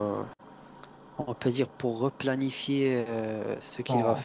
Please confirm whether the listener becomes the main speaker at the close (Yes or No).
Yes